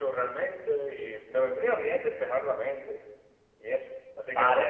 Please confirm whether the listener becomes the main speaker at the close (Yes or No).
Yes